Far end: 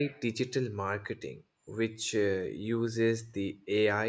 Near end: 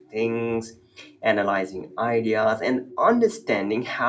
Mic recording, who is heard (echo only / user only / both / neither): user only